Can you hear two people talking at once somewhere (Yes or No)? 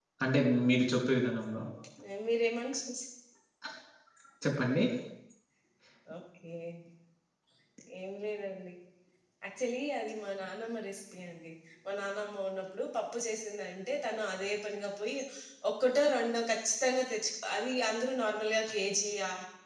No